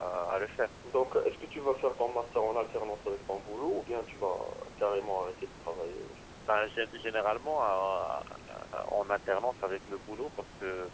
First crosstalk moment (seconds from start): none

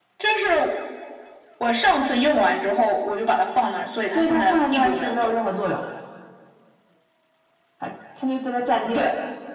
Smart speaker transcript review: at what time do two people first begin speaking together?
4.1 s

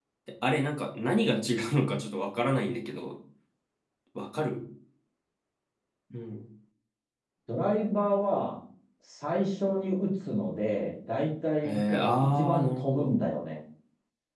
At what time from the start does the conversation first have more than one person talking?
11.6 s

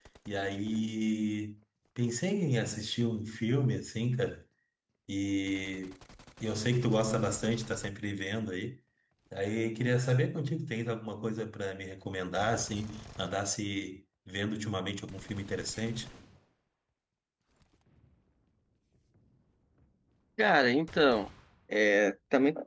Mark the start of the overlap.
none

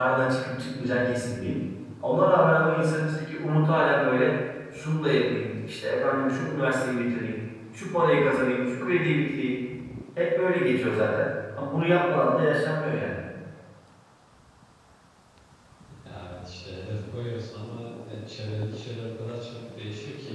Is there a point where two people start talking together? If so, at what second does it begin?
none

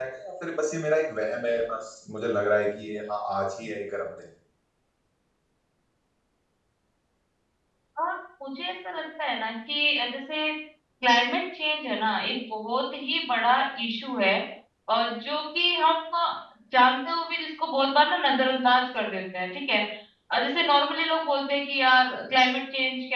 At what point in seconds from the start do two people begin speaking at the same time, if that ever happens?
none

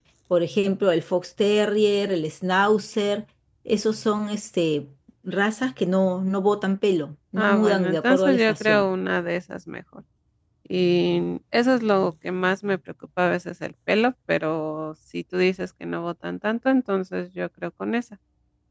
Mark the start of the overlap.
7.4 s

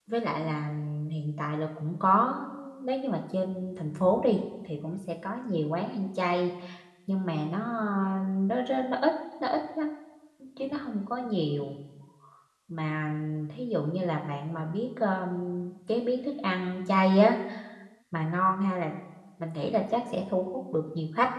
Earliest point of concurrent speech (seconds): none

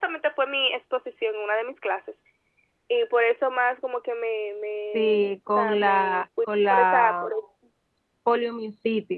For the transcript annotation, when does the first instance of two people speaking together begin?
4.9 s

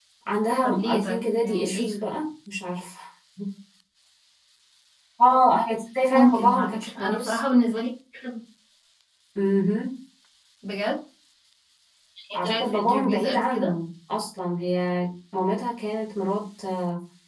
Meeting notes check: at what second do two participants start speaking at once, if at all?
0.6 s

